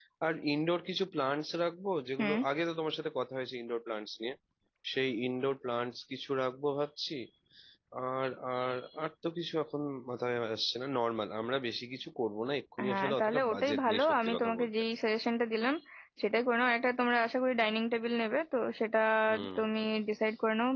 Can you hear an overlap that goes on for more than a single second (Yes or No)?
Yes